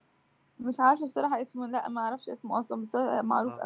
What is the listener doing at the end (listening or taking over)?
taking over